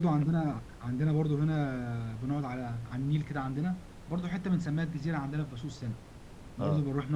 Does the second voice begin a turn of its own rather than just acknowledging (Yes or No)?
No